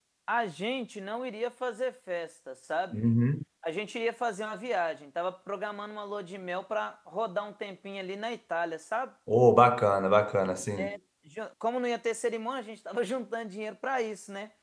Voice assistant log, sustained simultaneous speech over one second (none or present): none